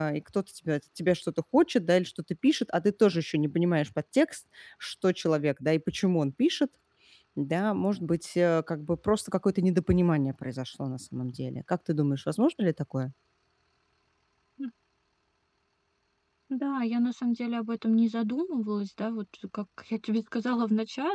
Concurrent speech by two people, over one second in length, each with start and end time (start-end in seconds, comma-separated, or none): none